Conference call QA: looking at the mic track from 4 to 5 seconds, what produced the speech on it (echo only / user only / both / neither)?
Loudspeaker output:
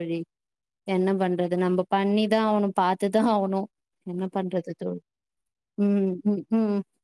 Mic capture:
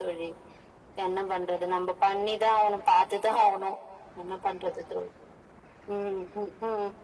echo only